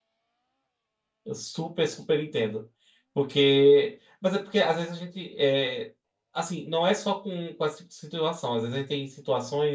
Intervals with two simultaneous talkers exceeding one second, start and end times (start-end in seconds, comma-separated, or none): none